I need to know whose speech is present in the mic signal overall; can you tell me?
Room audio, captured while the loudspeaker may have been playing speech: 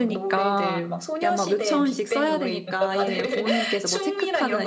both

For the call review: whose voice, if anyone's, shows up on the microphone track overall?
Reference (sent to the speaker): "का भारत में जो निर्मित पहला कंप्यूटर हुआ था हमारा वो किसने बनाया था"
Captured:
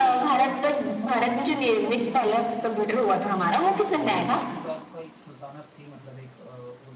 both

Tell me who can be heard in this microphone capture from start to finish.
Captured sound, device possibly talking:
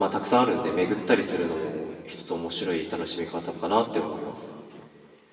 echo only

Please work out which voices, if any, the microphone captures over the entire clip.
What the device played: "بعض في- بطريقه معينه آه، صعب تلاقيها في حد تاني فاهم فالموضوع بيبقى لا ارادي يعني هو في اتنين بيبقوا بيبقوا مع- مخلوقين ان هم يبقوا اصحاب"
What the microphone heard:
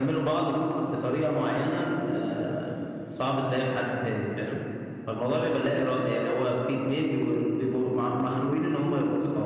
echo only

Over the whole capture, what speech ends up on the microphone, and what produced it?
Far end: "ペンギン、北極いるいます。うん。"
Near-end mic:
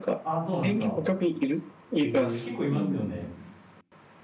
both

